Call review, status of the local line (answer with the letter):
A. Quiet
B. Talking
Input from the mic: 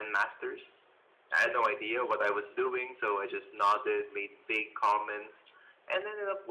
A